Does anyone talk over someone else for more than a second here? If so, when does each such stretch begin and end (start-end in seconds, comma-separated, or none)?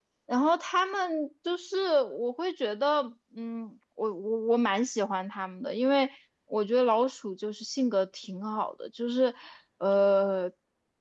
none